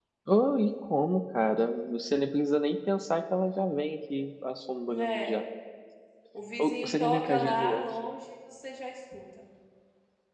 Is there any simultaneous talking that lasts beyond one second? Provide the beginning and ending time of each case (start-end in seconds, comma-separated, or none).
6.6-7.9